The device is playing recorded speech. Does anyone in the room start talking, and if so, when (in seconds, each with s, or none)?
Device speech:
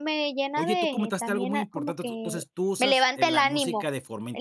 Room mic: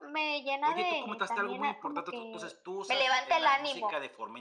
none